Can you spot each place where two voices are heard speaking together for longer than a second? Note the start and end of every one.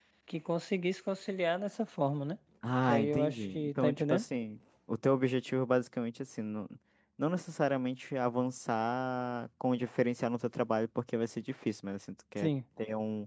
2.8-4.2

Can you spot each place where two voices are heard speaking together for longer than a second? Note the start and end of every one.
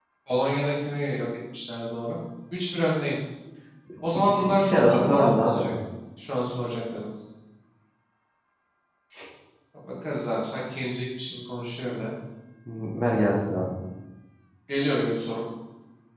4.3-5.7

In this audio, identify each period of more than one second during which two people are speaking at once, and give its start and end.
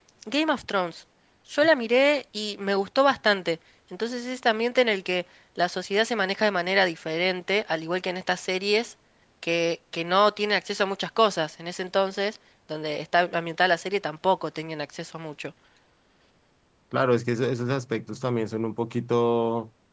none

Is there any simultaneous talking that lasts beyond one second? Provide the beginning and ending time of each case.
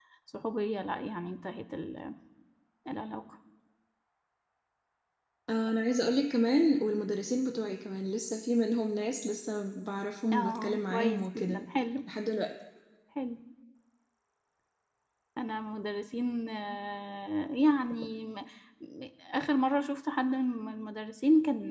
10.3-11.6

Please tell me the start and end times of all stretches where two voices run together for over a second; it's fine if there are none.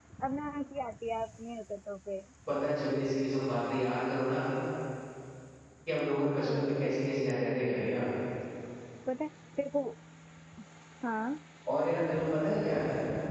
6.4-7.8

